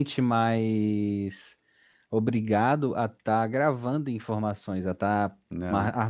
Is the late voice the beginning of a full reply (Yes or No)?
No